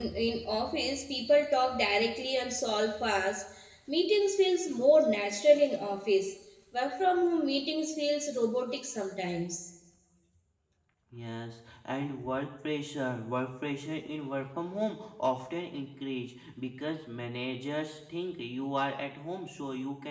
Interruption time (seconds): none

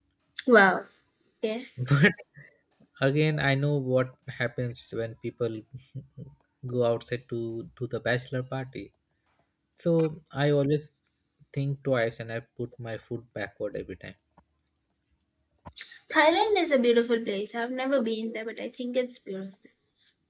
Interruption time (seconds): none

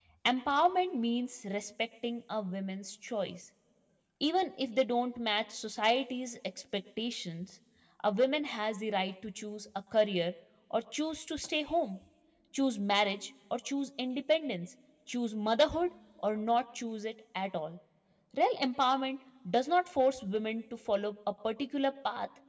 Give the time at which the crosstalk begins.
none

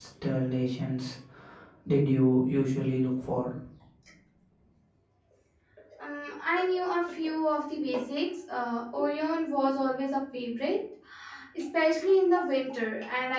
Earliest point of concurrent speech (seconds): none

